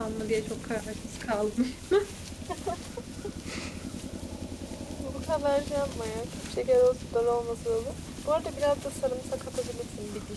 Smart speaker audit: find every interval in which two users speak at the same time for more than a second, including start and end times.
none

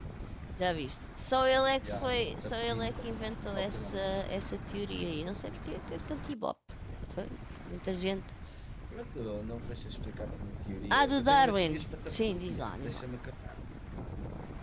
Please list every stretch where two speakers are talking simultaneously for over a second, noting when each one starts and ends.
1.8-4.2, 10.9-13.0

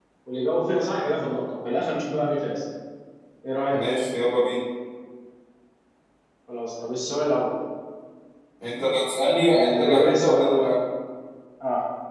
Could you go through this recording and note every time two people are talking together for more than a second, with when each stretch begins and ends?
9.5-10.8

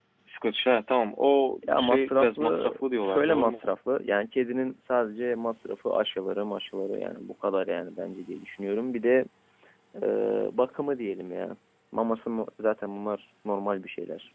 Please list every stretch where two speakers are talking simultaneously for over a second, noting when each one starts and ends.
1.7-3.7

